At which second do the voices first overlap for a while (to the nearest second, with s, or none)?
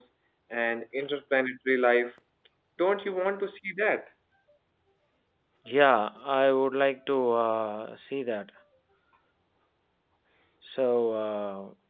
none